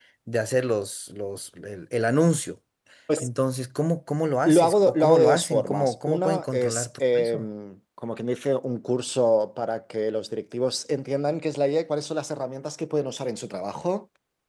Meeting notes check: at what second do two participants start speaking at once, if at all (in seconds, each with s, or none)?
4.5 s